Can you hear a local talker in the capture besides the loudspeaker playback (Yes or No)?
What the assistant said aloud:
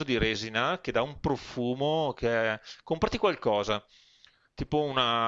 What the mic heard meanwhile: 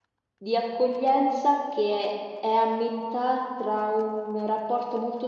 Yes